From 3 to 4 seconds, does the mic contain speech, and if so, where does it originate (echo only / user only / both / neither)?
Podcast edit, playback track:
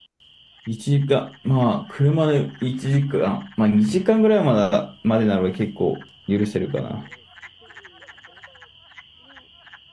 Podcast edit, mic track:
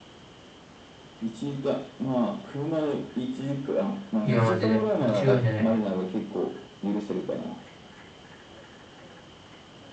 echo only